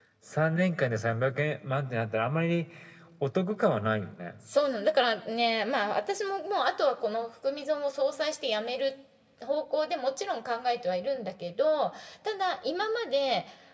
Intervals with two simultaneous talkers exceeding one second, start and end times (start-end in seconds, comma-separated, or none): none